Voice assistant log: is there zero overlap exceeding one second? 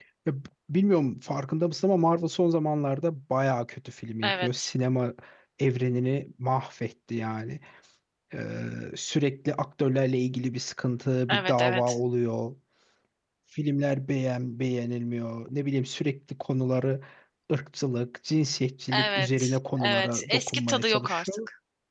No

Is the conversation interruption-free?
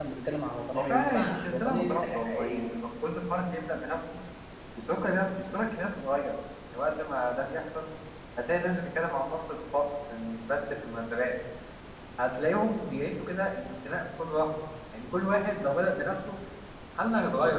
No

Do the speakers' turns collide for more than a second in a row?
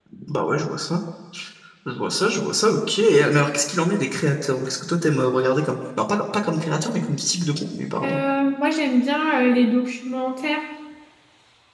No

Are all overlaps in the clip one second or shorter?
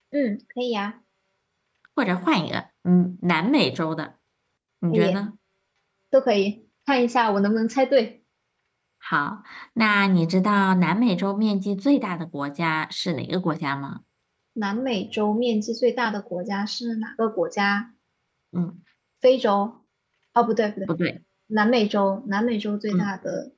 Yes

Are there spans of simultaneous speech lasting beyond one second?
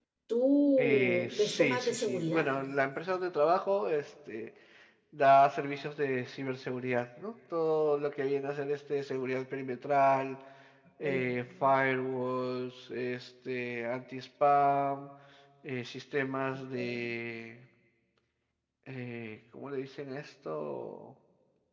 Yes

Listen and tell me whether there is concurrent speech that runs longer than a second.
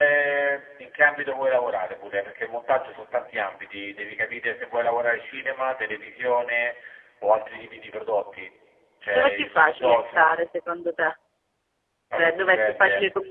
Yes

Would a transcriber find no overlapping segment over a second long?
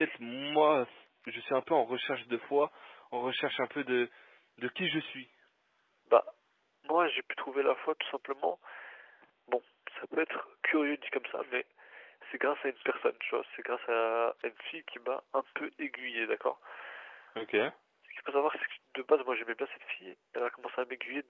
Yes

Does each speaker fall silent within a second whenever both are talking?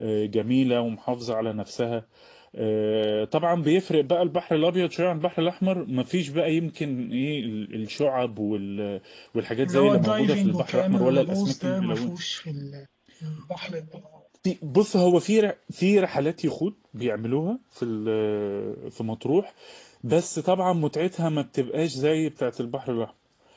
No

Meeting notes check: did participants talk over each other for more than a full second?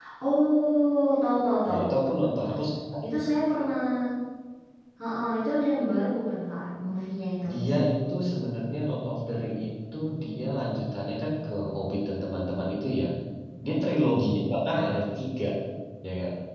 No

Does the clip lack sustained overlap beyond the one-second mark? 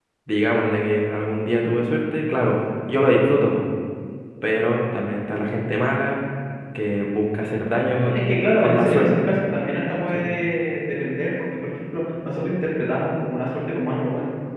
No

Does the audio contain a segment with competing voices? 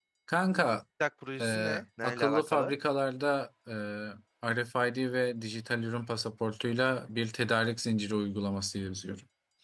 Yes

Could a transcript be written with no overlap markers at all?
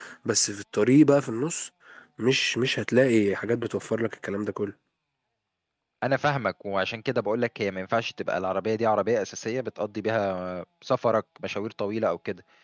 Yes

